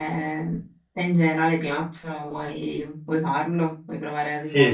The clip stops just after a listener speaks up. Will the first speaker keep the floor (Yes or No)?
No